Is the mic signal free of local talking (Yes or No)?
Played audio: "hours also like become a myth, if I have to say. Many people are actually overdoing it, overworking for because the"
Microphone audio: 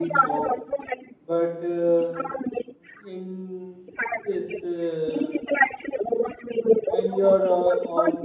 No